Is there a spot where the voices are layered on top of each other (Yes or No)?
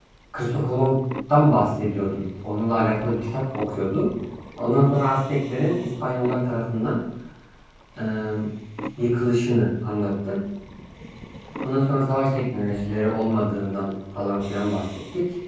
No